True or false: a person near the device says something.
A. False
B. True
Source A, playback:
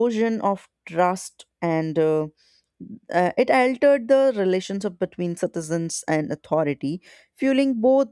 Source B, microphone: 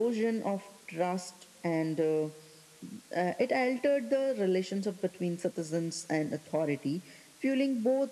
A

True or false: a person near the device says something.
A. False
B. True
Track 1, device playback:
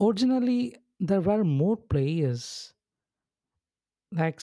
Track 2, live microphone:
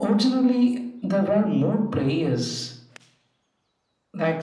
A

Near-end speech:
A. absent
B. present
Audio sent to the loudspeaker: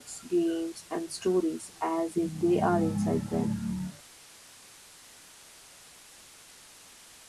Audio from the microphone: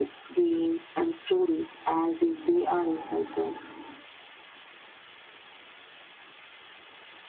A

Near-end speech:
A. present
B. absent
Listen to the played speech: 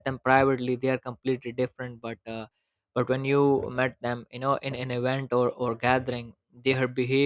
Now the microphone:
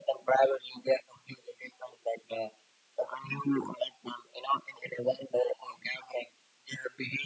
B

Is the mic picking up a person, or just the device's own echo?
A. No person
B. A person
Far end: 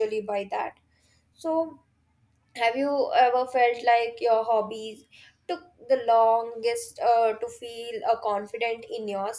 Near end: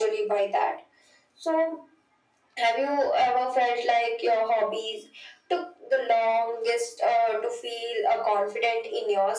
A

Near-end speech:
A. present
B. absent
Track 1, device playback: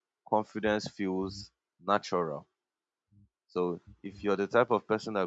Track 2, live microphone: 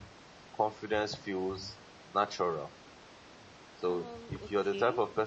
A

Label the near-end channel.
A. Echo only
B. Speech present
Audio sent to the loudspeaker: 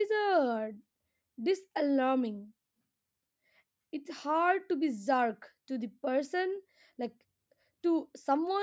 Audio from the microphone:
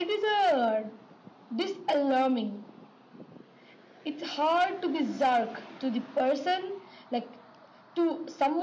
A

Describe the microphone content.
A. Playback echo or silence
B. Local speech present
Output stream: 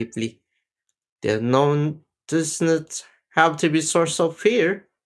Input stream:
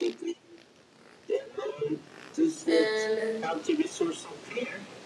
B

